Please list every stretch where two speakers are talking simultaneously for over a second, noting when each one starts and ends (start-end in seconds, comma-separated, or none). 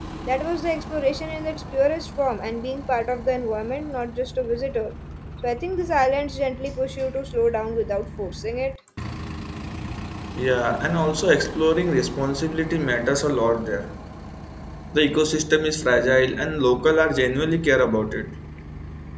none